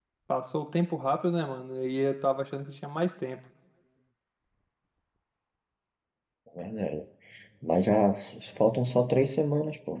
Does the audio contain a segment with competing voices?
No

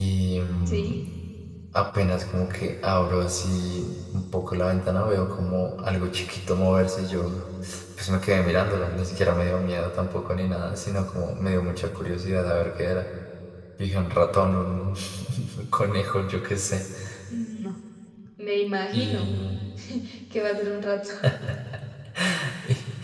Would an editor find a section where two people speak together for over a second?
No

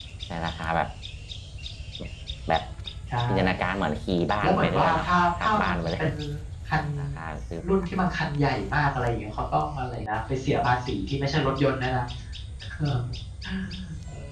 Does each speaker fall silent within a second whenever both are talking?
No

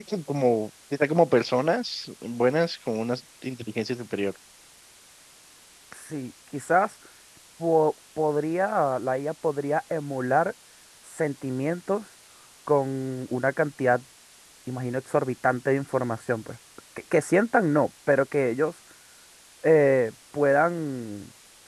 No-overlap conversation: Yes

